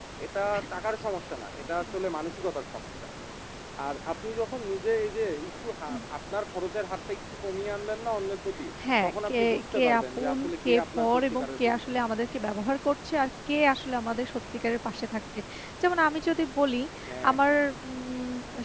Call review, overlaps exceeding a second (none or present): present